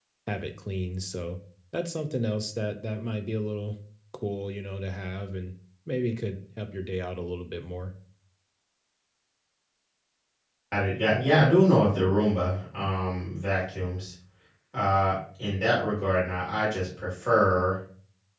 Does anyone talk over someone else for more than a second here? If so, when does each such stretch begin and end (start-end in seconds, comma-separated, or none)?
none